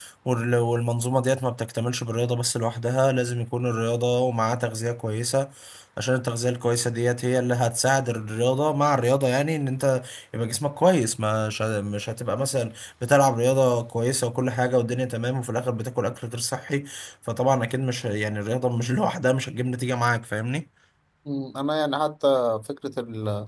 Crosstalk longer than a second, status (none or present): none